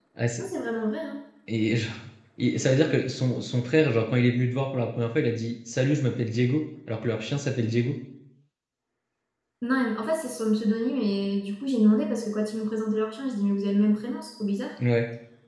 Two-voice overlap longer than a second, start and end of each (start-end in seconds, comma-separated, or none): none